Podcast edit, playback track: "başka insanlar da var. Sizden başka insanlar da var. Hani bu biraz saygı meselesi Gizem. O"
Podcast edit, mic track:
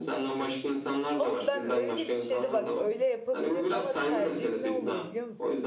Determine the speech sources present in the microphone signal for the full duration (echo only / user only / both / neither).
both